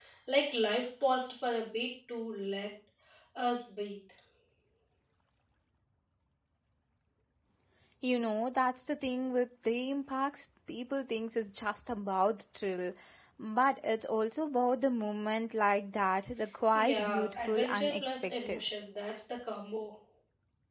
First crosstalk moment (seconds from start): 17 s

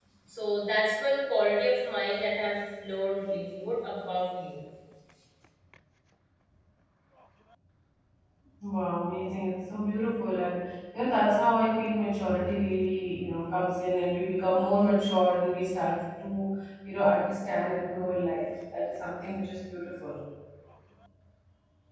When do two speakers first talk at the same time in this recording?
none

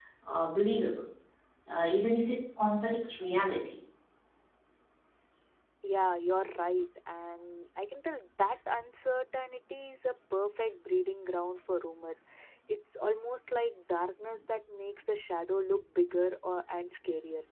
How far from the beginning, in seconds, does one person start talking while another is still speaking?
none

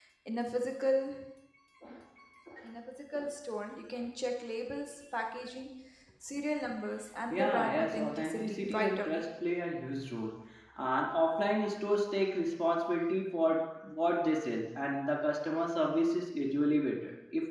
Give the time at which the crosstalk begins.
7 s

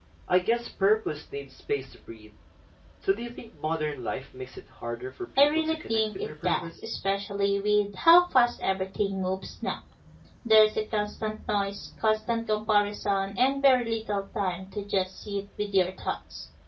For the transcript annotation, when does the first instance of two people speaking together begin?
5 s

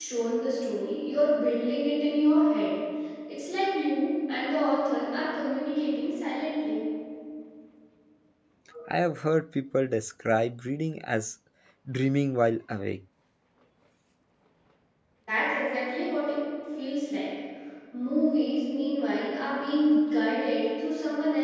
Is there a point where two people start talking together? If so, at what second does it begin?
none

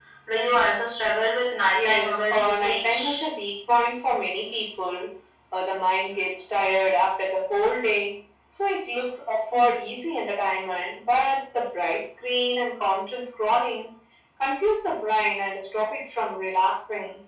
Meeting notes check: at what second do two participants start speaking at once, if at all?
2 s

